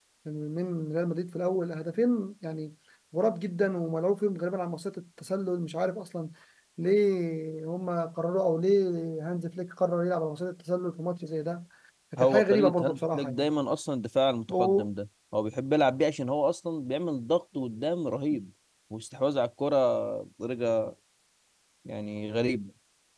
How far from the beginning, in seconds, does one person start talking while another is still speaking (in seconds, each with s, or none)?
12.2 s